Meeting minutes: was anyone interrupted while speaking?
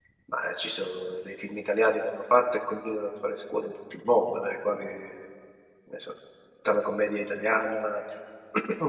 No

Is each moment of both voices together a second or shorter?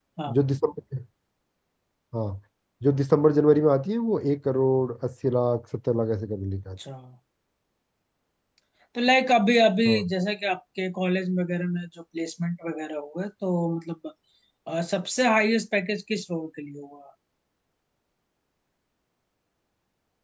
Yes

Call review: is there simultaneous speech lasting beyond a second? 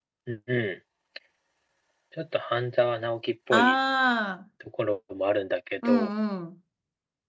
No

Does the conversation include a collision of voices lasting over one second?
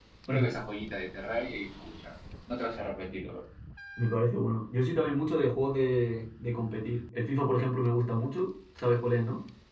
No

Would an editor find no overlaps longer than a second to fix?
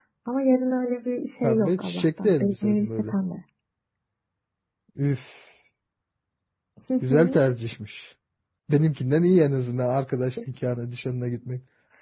No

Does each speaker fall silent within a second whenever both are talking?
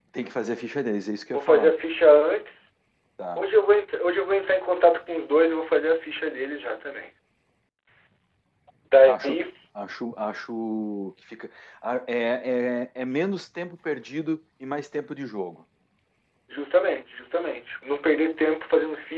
Yes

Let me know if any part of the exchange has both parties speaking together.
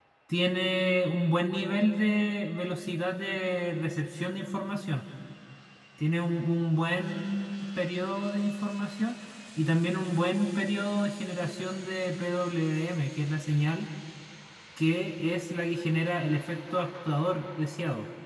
No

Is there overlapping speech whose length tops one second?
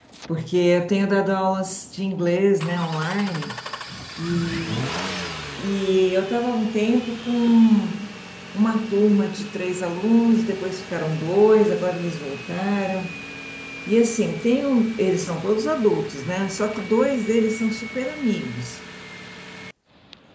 No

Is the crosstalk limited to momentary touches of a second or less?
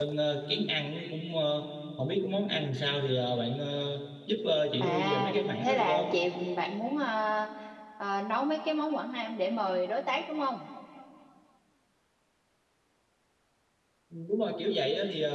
No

